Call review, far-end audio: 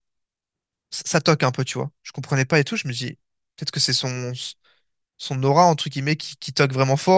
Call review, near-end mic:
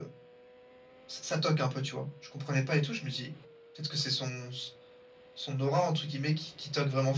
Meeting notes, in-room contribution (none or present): none